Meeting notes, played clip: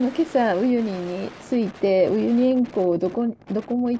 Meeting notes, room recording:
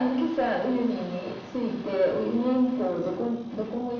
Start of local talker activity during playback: none

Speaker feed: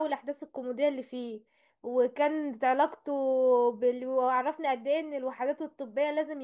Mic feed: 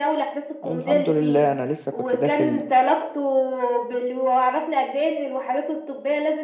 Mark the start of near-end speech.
1 s

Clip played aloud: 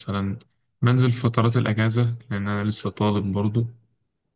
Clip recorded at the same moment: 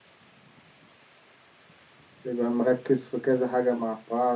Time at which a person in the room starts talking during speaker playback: 2 s

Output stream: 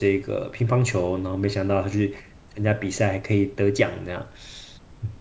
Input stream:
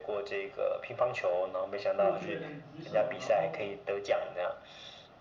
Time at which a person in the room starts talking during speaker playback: 2 s

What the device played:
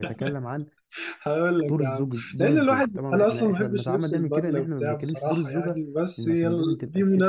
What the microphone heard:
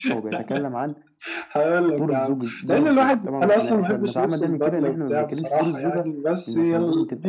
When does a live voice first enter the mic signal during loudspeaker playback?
none

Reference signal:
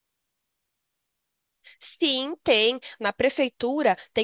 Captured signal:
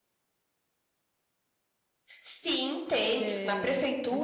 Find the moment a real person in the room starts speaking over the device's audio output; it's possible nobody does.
3 s

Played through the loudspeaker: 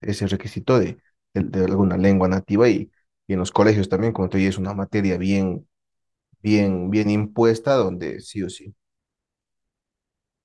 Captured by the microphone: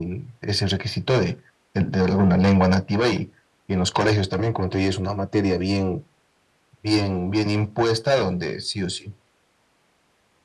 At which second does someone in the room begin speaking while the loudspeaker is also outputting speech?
none

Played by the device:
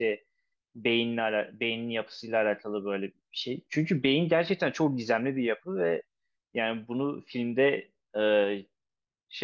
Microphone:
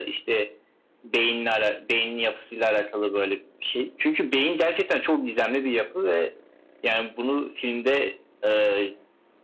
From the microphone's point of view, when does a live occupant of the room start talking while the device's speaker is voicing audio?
none

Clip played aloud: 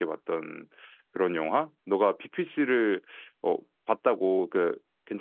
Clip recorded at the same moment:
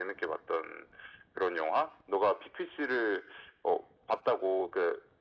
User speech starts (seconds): none

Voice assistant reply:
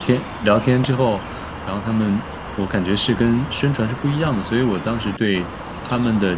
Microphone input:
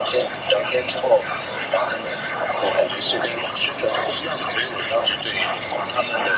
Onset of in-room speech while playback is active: none

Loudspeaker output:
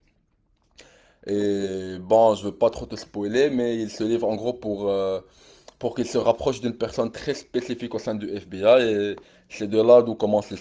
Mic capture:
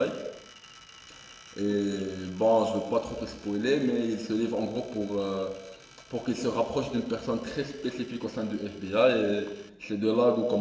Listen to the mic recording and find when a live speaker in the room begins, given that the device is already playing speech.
none

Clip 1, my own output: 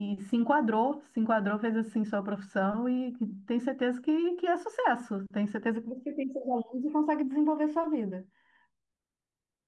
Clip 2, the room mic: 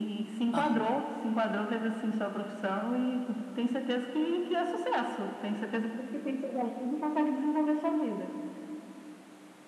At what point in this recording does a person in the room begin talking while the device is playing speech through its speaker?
1 s

